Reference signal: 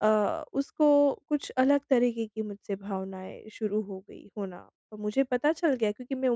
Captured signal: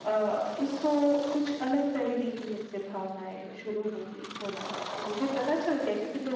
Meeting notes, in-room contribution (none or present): none